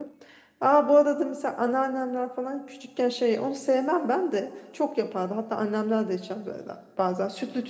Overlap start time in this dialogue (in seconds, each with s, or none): none